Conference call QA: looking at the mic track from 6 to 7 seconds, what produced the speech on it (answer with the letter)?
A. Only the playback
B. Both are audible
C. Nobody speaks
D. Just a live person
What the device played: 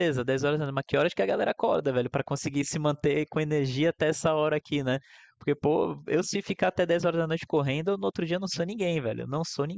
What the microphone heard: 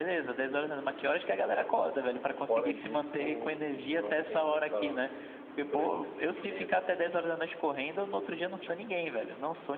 B